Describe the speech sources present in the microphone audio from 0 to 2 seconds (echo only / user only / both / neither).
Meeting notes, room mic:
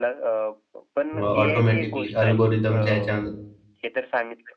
both